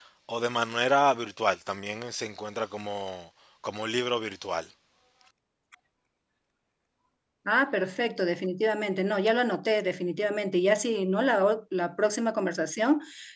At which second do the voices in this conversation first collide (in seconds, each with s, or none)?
none